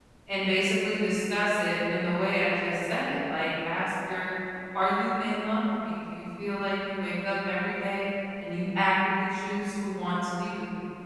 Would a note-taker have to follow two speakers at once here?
No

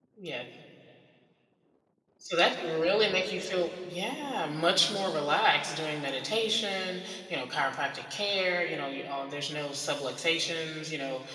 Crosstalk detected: No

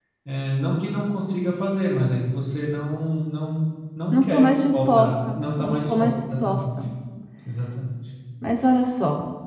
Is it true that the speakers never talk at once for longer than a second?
No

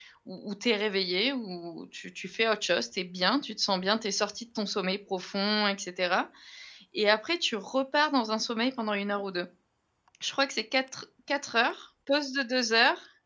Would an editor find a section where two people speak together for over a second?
No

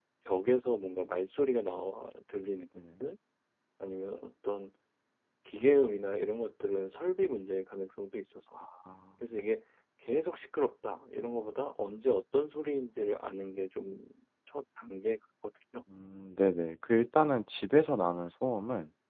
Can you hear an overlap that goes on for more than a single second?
No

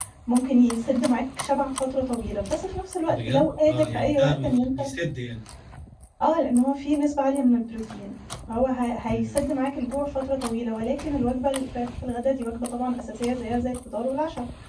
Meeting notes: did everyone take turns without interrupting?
No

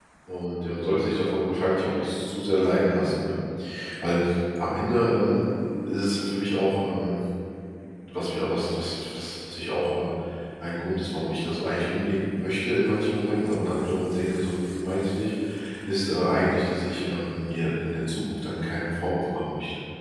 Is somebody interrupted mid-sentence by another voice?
No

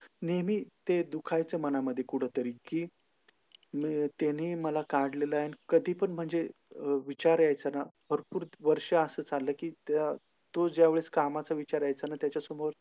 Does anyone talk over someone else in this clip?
No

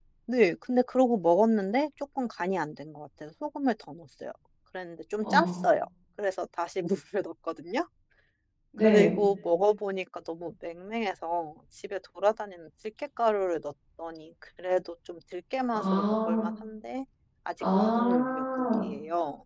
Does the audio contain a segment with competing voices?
Yes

